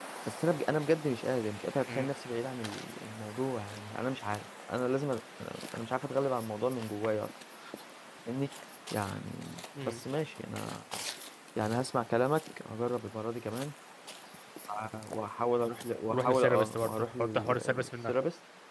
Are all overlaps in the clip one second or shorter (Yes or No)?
No